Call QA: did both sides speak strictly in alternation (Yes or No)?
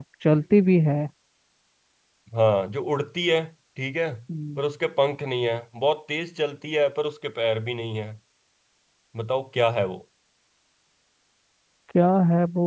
Yes